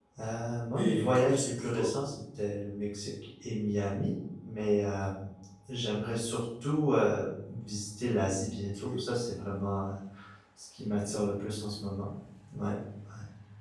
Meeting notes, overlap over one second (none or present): present